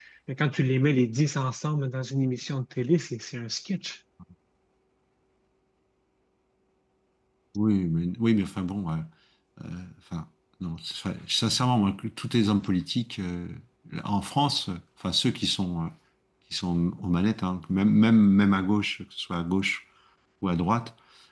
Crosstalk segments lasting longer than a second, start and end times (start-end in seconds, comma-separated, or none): none